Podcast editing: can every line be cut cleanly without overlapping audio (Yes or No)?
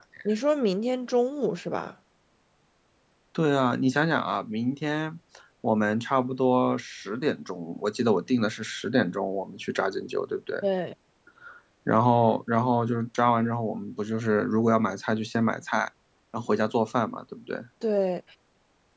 Yes